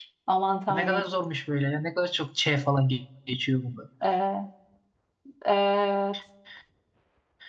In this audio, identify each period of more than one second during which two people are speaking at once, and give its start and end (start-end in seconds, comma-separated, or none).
none